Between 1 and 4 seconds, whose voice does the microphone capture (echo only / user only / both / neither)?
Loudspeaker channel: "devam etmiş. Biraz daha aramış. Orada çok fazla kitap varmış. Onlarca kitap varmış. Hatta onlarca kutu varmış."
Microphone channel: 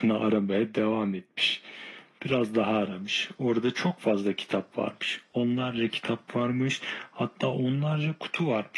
echo only